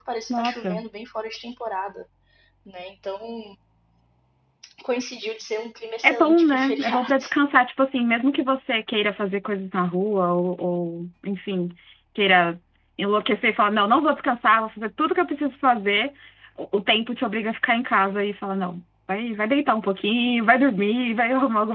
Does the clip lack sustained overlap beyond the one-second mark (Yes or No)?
No